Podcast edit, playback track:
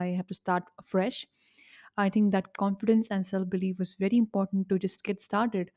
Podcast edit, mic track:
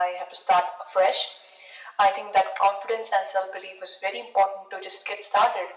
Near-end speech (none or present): none